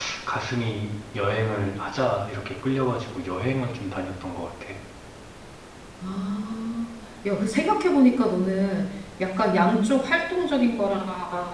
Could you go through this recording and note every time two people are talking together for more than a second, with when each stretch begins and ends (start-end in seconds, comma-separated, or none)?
none